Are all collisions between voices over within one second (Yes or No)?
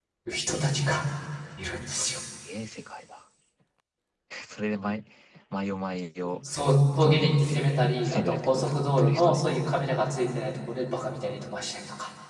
No